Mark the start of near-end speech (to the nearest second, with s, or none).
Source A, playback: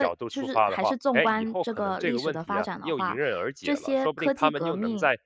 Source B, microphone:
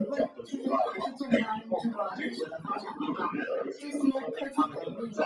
none